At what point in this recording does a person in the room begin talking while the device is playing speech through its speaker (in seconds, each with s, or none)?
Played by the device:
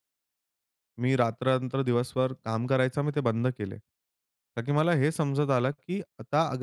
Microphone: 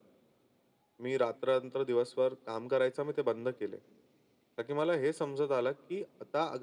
none